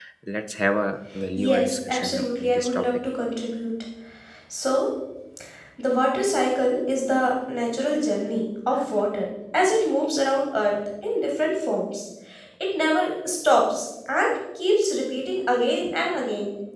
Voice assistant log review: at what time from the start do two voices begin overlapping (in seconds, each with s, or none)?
1.1 s